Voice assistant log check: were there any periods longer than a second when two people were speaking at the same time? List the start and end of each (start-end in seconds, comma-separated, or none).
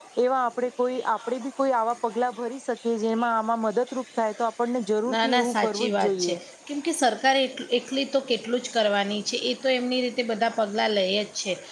5.1-6.3